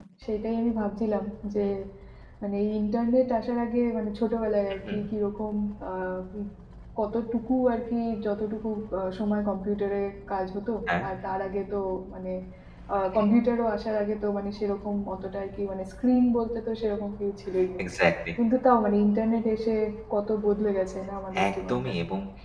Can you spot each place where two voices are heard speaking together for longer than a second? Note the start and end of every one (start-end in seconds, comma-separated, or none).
none